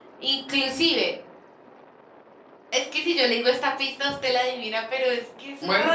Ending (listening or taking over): taking over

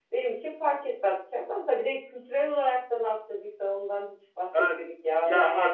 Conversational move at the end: taking over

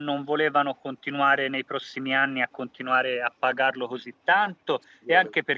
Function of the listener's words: listening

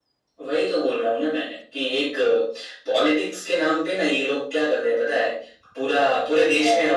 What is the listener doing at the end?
listening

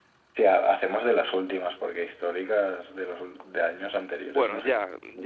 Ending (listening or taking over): taking over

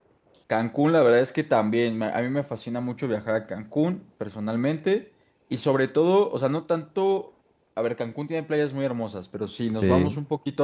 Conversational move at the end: listening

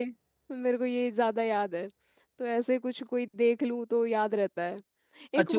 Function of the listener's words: taking over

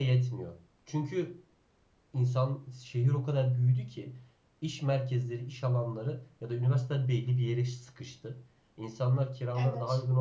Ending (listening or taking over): listening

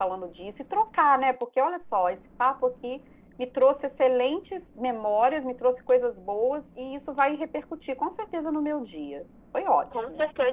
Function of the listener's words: taking over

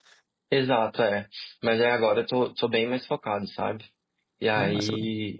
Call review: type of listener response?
listening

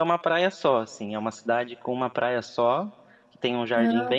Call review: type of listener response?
listening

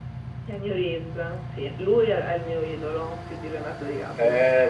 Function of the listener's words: taking over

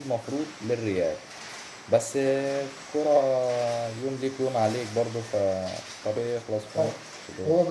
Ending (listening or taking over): taking over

